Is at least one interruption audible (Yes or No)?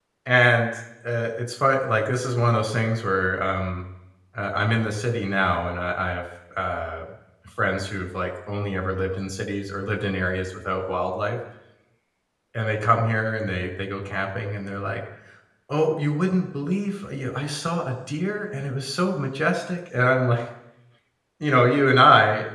No